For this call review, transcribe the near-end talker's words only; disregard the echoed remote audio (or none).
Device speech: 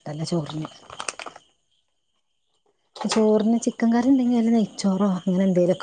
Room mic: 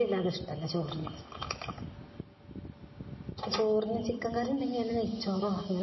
none